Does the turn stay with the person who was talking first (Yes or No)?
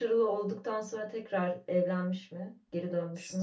No